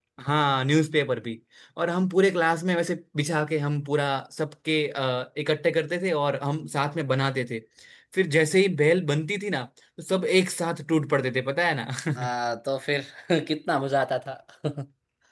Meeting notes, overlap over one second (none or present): none